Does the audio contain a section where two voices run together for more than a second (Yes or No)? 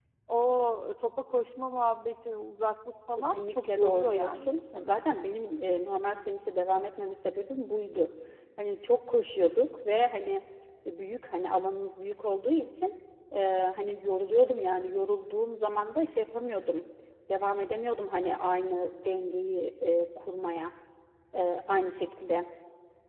Yes